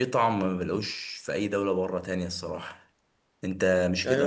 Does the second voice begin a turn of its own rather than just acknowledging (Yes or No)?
Yes